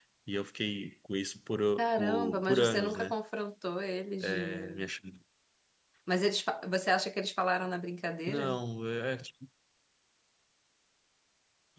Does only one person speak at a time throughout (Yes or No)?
No